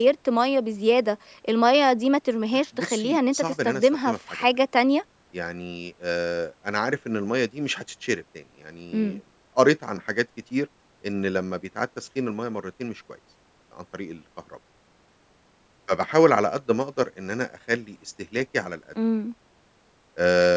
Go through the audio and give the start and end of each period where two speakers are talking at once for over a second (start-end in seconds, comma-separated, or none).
2.8-4.5